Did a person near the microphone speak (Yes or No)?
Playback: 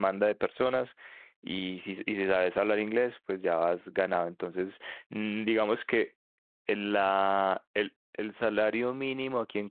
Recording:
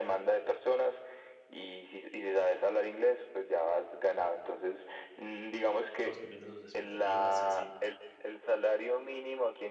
Yes